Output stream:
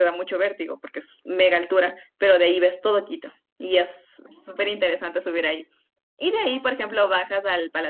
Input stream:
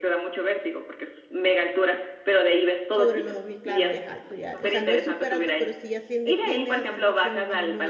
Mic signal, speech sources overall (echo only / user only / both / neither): both